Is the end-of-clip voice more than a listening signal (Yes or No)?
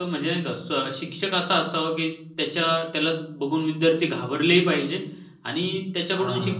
No